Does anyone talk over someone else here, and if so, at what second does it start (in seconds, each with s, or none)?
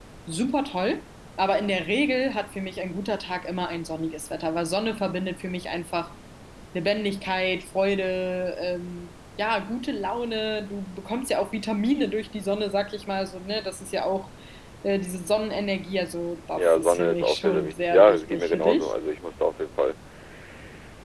16.6 s